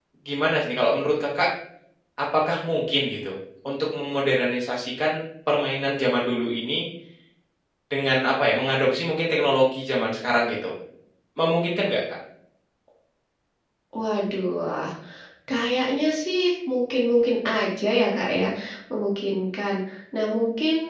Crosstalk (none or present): none